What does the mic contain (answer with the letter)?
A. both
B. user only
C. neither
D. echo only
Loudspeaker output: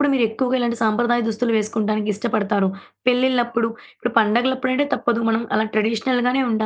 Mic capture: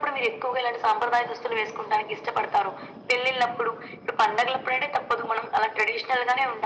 D